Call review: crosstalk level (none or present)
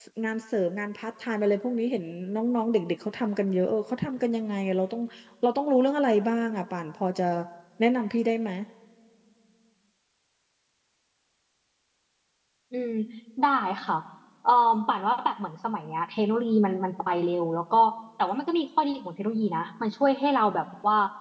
none